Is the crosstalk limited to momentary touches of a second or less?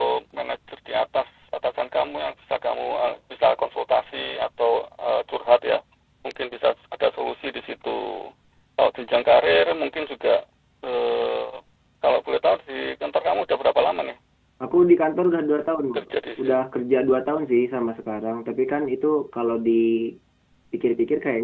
Yes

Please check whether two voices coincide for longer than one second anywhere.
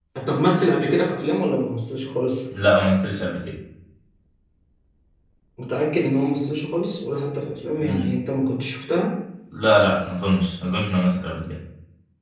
No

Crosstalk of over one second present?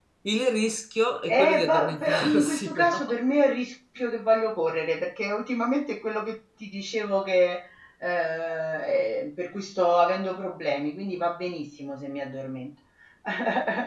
Yes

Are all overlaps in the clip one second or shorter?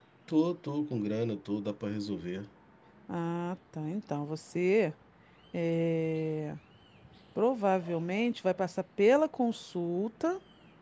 Yes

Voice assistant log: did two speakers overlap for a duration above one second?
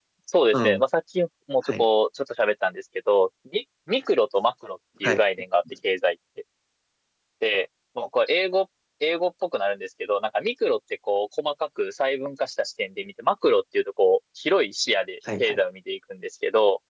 No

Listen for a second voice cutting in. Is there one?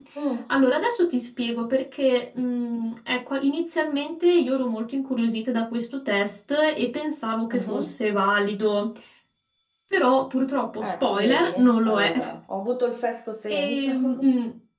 Yes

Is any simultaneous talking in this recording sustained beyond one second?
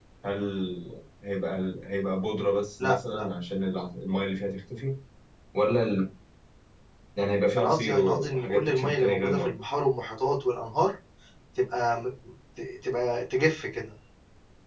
Yes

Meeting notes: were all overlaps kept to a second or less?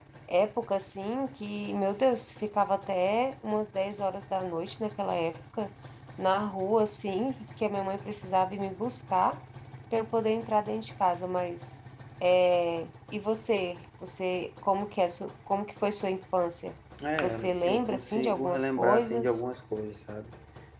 No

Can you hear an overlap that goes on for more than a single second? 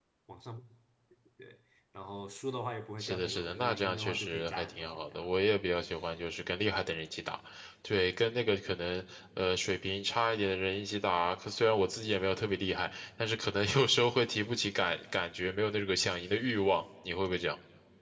Yes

